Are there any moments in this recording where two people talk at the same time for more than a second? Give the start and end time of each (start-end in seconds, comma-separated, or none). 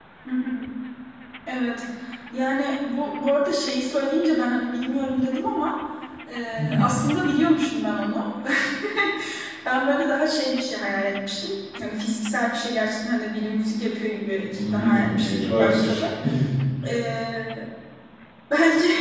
14.5-16.0